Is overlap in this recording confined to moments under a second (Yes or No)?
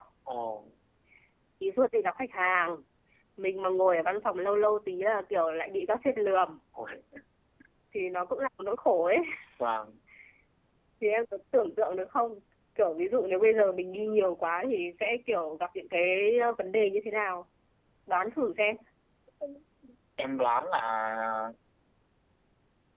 Yes